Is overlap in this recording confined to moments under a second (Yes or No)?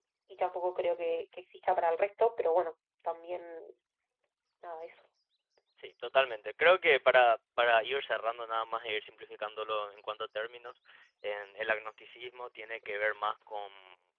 Yes